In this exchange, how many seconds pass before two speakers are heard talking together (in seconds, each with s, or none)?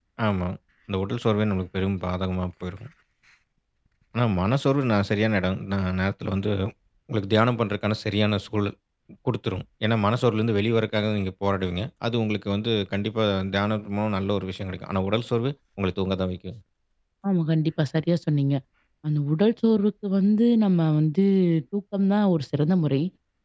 none